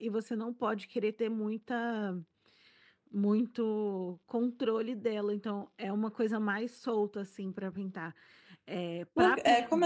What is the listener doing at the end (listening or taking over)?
taking over